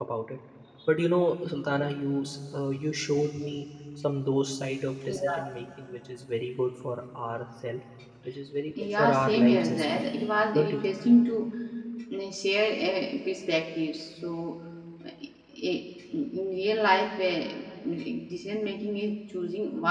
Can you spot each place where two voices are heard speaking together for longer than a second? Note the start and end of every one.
8.8-10.0

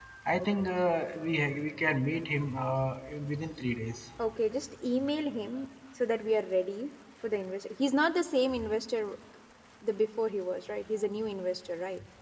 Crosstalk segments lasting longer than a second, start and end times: none

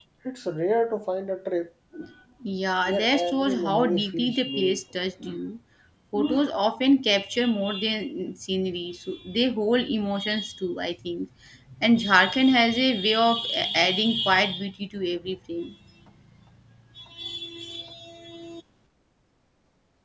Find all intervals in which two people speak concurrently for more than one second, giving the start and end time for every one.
2.9-4.8

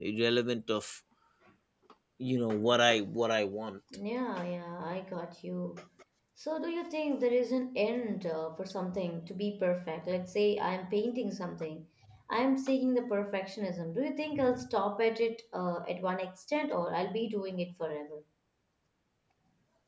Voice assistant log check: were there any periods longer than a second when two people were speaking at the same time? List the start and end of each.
none

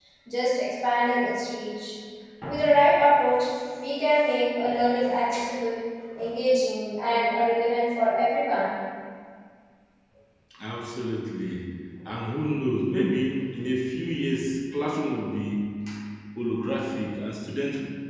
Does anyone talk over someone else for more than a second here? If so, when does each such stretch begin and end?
none

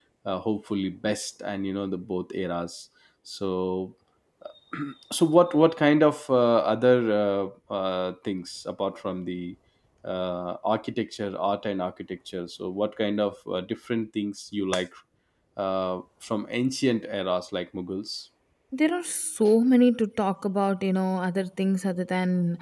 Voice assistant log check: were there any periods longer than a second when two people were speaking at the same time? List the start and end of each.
none

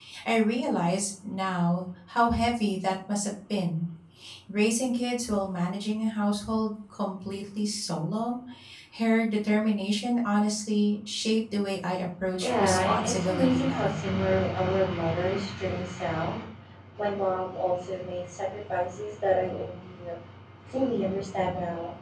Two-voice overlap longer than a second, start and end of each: 12.4-14.0

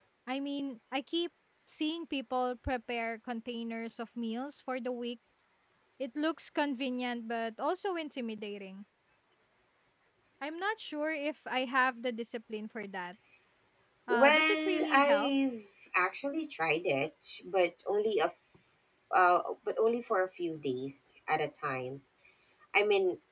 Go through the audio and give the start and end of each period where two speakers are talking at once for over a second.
14.1-15.3

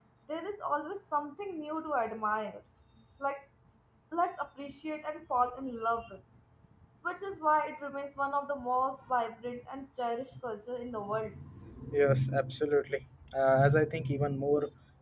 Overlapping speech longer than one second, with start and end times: none

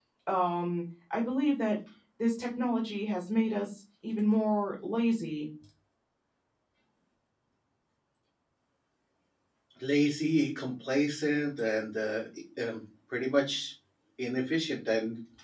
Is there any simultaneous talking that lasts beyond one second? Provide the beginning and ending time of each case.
none

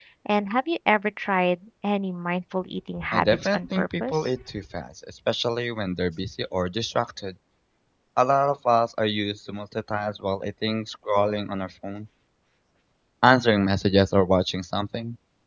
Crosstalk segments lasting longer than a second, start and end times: 3.1-4.4

